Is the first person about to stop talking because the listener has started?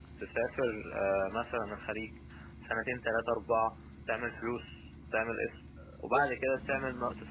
No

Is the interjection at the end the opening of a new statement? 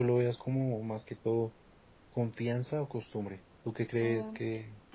Yes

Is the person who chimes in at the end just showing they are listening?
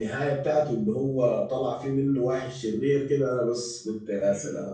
No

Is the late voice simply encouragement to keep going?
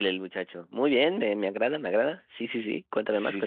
No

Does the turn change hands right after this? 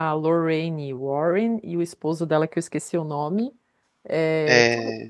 No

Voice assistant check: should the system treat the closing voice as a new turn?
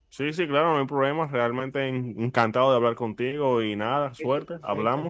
Yes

